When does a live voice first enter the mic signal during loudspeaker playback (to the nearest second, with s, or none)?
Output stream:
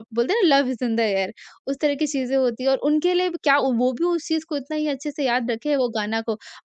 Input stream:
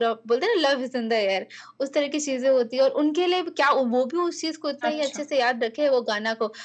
5 s